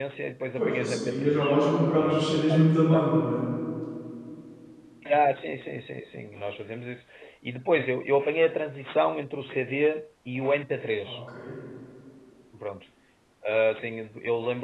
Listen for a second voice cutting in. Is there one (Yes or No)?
Yes